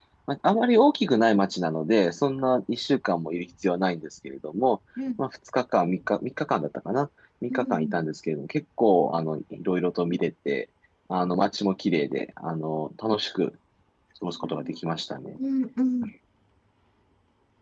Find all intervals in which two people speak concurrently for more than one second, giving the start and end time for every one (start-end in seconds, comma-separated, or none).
none